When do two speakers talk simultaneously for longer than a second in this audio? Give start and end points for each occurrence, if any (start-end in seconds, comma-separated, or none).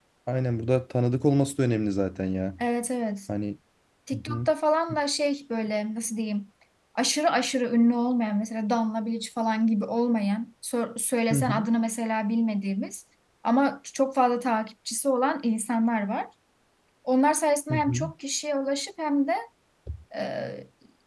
none